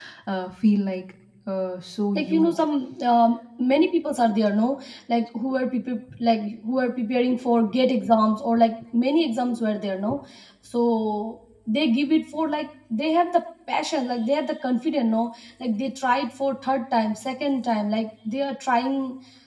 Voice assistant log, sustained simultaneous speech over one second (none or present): none